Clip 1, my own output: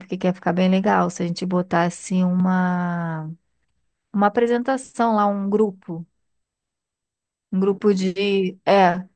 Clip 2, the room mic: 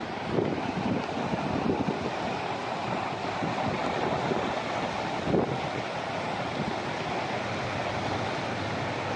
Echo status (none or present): none